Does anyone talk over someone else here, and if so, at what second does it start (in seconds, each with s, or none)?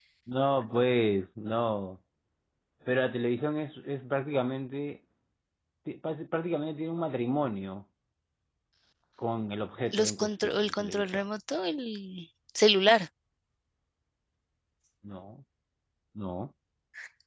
9.9 s